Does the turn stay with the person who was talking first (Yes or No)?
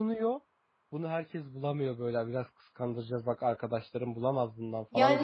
No